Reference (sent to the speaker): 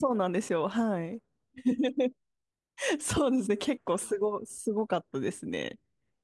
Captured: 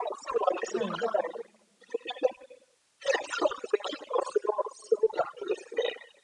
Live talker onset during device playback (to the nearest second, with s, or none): 1 s